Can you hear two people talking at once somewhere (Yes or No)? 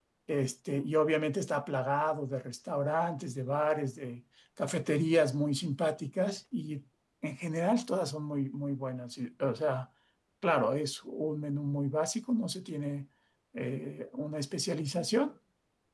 No